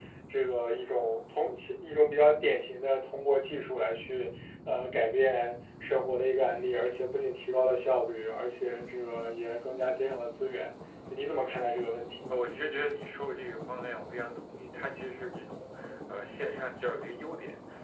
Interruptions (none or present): none